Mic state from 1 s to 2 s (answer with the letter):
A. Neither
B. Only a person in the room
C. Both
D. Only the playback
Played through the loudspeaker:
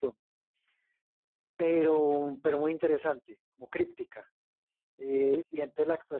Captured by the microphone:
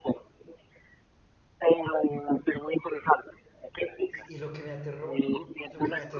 D